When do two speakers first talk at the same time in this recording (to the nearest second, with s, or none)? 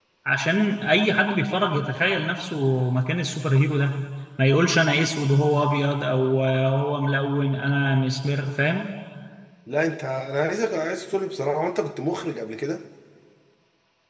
none